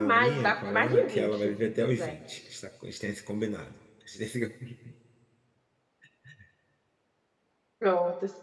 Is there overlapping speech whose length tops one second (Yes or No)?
Yes